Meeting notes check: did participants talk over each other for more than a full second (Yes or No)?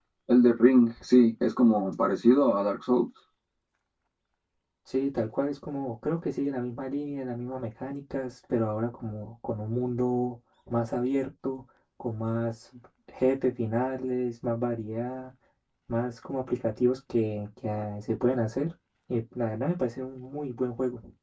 No